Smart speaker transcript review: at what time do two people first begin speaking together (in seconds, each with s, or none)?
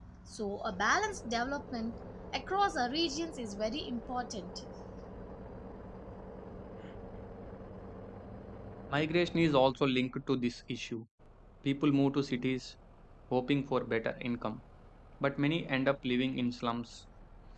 none